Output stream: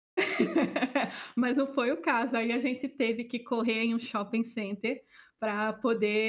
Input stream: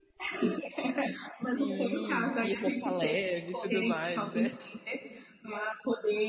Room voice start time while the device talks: 1.5 s

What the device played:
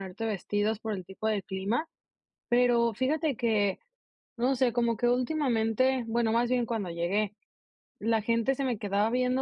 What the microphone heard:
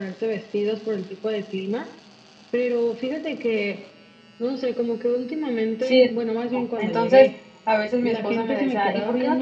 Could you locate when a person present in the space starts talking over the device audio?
5.8 s

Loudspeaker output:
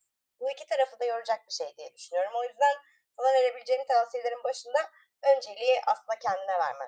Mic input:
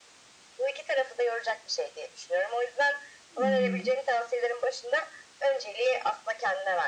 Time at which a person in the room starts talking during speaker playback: 3.4 s

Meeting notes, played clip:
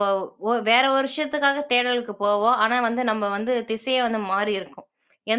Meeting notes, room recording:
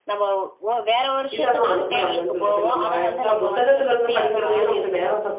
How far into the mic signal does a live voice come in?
1.4 s

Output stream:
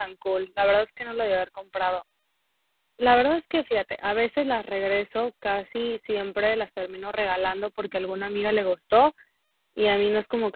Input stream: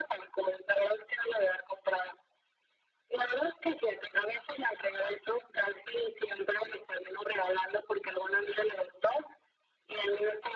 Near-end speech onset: none

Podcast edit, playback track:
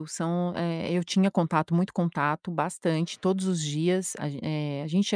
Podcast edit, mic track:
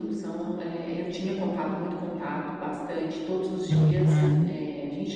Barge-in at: 3.7 s

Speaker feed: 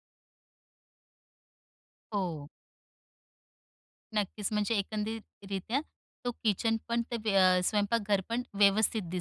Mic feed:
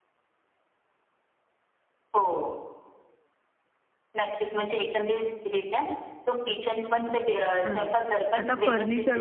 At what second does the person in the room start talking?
7.6 s

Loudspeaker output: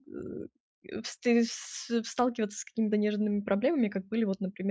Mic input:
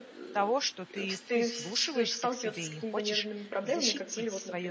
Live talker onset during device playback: 0.3 s

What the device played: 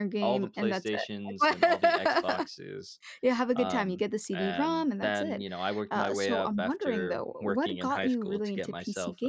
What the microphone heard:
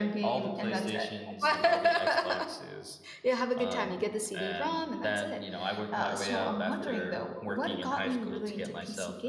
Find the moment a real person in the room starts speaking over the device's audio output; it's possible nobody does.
none

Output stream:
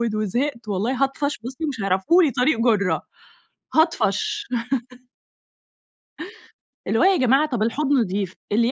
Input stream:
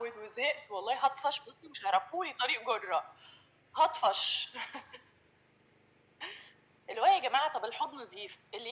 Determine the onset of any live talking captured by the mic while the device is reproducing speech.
none

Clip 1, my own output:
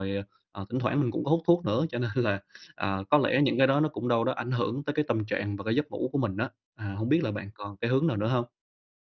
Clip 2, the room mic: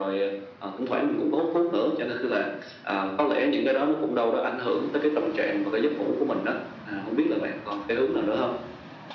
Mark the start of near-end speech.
none

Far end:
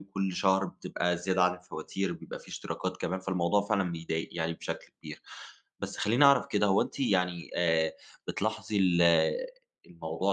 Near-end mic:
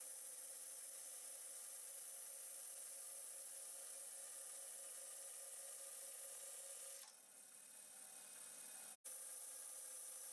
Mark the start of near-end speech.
none

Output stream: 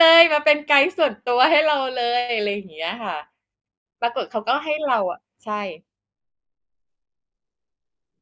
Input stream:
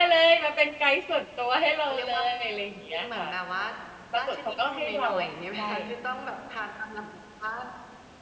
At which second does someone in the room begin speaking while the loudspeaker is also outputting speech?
1.8 s

